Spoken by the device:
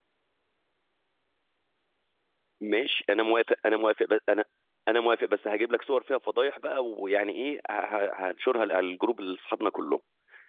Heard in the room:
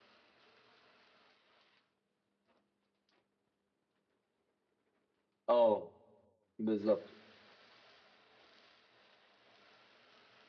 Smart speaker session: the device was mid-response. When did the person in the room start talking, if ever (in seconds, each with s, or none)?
5.5 s